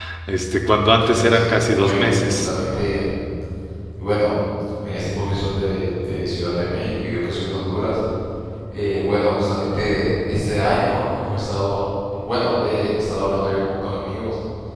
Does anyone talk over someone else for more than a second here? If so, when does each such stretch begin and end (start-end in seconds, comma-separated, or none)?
1.0-2.5